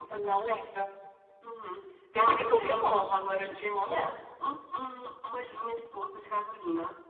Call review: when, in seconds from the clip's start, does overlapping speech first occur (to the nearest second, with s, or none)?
2 s